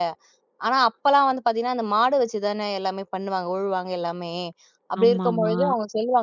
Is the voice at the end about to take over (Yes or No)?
No